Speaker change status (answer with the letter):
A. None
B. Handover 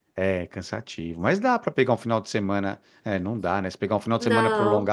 A